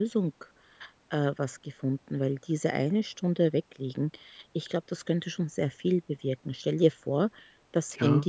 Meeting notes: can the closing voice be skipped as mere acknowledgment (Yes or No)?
Yes